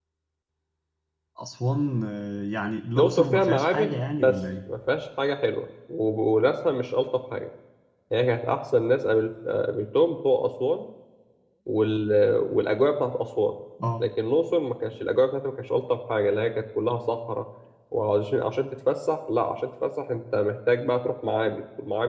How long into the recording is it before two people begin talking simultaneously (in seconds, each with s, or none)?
3.0 s